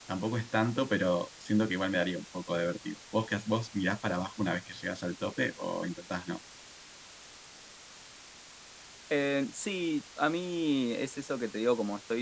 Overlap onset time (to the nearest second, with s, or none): none